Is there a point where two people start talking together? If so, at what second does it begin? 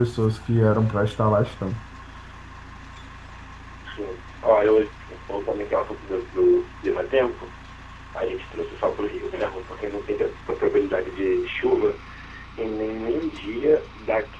none

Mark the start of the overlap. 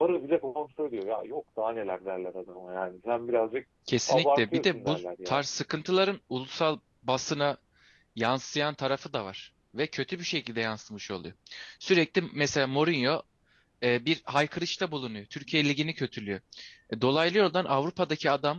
4.1 s

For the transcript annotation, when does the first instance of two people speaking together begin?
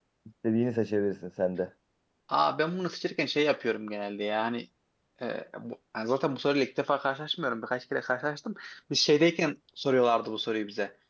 none

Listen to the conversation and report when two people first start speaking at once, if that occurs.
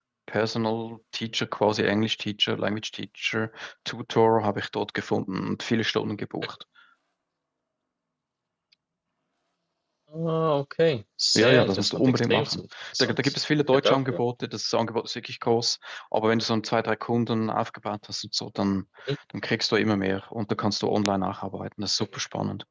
11.4 s

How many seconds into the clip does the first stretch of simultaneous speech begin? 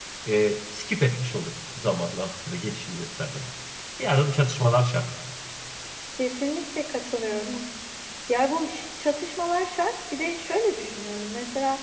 none

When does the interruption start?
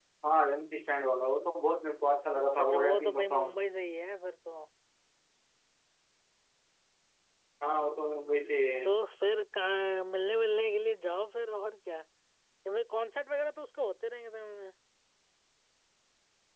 2.3 s

